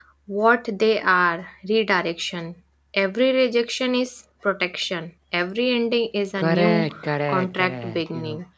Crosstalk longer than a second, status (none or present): present